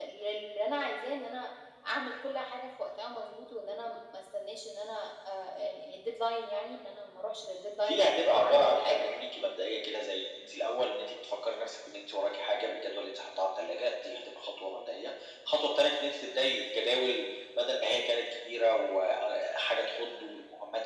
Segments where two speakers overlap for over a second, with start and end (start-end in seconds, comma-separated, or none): 7.8-9.1